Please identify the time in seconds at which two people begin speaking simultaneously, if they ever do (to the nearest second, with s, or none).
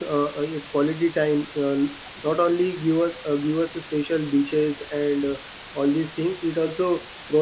none